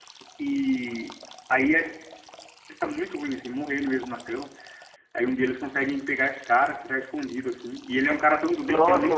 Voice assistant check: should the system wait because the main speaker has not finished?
No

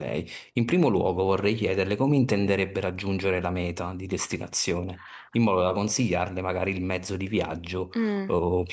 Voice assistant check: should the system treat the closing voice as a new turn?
No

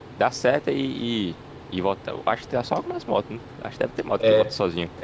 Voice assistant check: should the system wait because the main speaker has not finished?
No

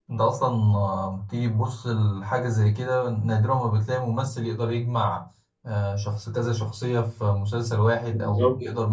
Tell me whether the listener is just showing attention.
Yes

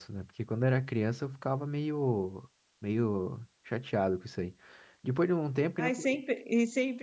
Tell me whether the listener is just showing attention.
No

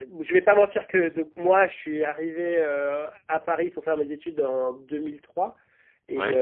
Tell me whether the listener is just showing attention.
Yes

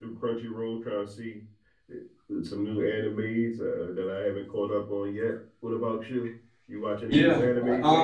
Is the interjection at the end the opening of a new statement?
Yes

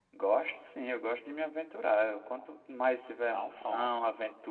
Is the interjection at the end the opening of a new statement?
No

